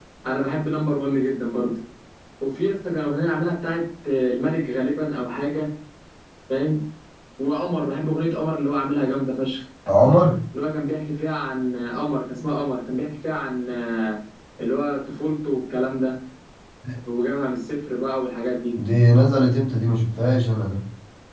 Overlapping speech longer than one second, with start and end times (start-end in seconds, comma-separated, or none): none